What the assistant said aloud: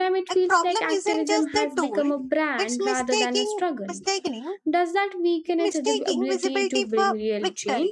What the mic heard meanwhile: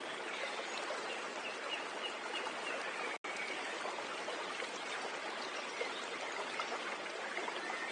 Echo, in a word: none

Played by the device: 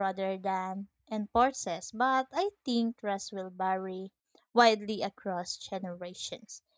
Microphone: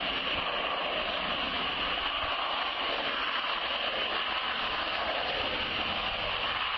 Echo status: none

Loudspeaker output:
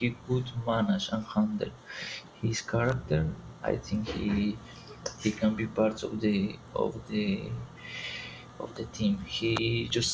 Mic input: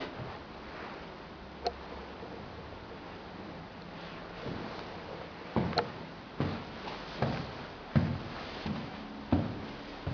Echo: none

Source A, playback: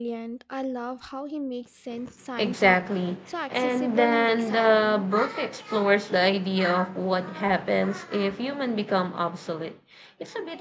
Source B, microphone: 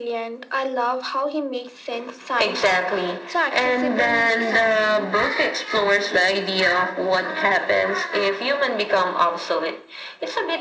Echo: present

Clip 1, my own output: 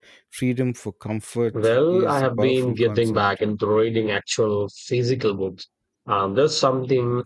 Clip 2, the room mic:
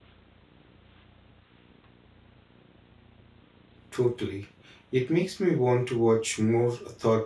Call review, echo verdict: none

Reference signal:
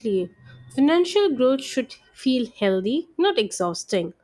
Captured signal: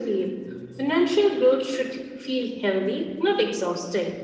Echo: present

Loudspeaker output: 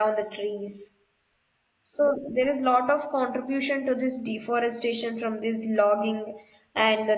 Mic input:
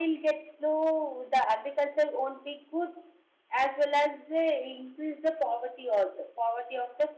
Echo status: none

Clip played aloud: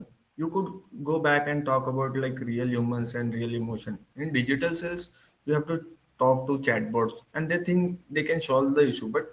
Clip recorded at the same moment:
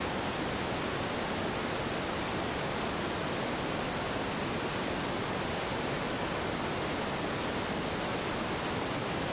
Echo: none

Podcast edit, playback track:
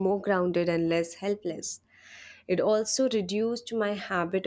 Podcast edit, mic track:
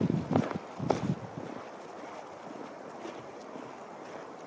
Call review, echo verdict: none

